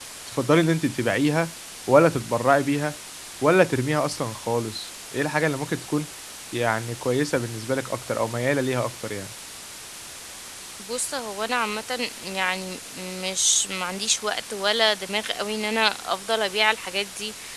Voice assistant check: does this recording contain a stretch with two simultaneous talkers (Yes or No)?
No